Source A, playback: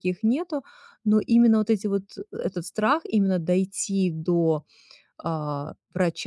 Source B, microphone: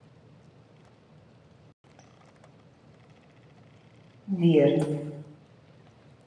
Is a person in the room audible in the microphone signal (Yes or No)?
Yes